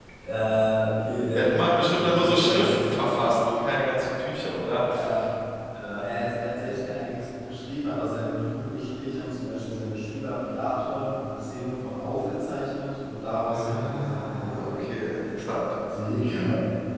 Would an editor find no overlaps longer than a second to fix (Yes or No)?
No